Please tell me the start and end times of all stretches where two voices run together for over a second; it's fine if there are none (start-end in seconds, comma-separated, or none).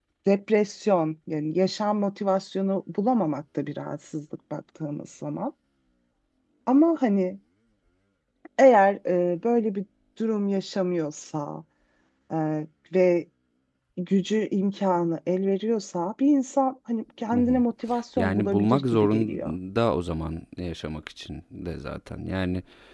18.2-19.5